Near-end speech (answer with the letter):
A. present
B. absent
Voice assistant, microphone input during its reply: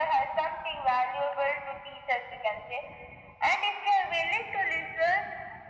B